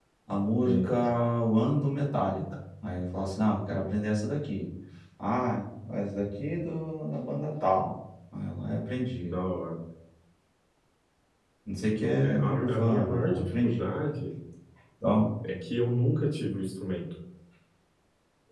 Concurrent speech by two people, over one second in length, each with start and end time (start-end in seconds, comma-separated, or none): 12.2-13.9